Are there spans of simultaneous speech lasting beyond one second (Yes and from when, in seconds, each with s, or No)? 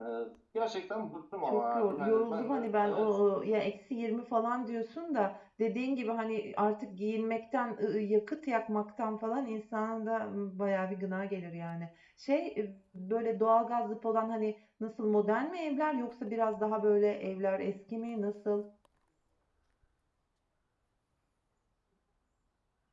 Yes, from 1.5 s